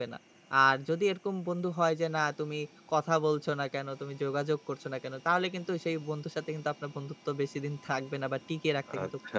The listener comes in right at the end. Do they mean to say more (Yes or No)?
Yes